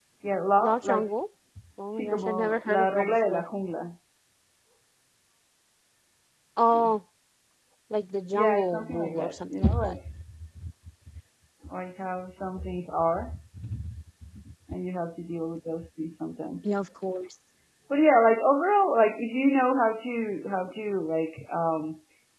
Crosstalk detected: Yes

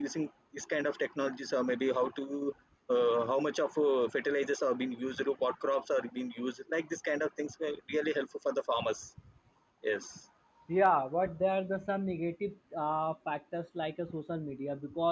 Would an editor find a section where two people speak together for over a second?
No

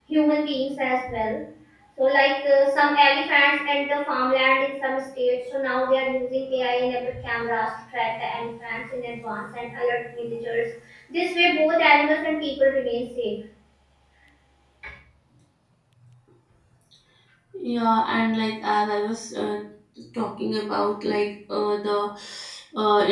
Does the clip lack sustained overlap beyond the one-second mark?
Yes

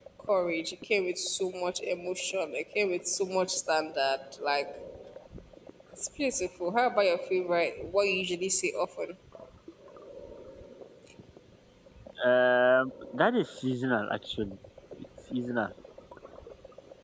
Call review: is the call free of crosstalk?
Yes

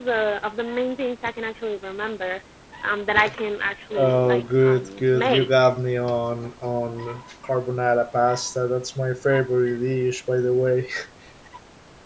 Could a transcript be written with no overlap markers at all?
No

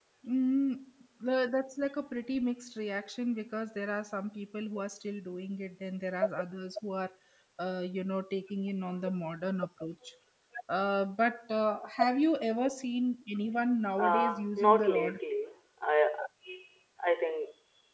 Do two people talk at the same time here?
Yes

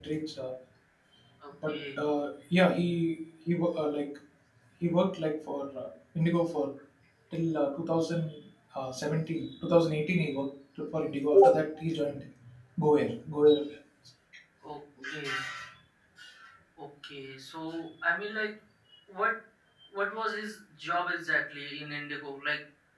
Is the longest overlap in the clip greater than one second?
No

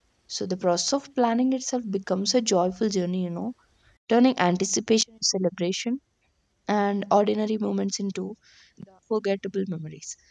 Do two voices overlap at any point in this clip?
No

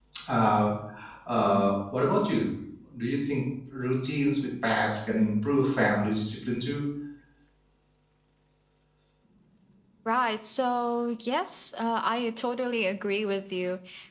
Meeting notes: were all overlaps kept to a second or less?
Yes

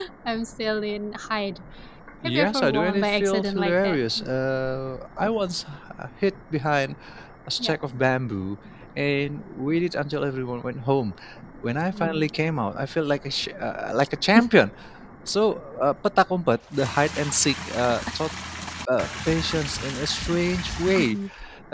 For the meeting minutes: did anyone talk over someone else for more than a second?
Yes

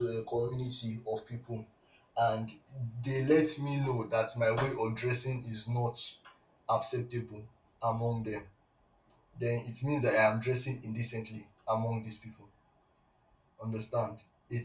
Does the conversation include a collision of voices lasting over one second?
No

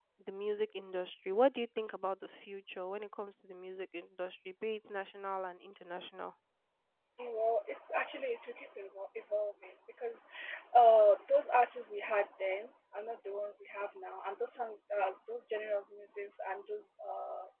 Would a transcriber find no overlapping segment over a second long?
Yes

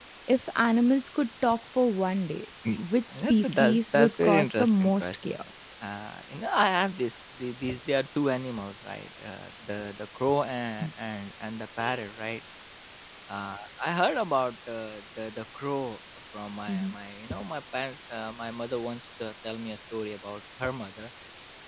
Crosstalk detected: Yes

